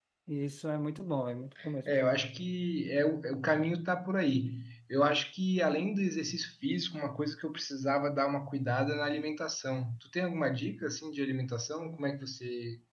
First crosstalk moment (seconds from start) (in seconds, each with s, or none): none